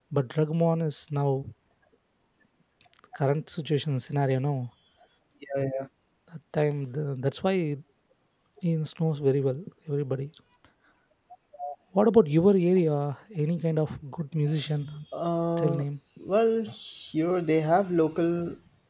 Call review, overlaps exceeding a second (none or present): none